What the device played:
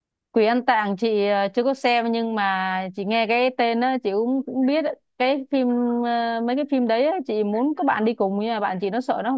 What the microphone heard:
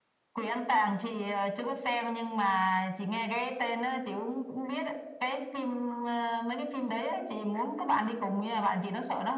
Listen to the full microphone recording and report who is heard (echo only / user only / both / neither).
echo only